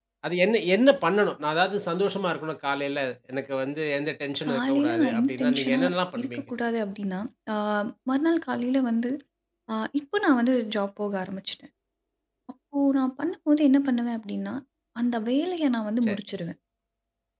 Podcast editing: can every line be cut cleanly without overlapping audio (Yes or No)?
No